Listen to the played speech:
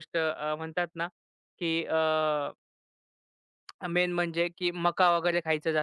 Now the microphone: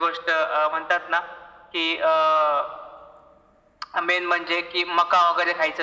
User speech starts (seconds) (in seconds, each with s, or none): none